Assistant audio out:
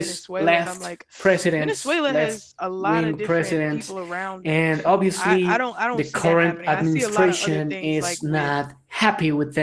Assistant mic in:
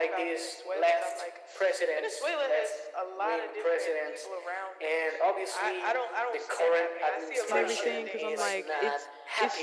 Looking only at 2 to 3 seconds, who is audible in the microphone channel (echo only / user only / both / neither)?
echo only